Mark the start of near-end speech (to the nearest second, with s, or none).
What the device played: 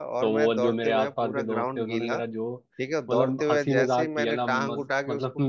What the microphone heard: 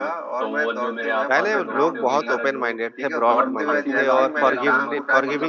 1 s